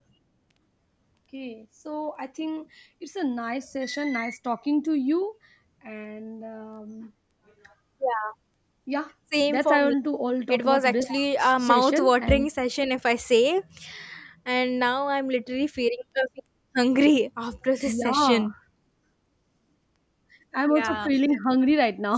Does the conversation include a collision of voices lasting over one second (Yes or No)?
Yes